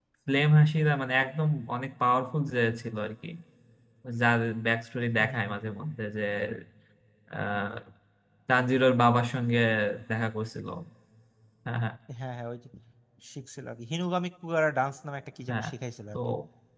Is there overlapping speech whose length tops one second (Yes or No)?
No